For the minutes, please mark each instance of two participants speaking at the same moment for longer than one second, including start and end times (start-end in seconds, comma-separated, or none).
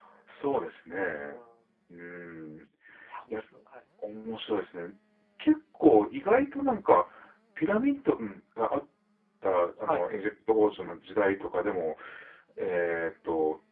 none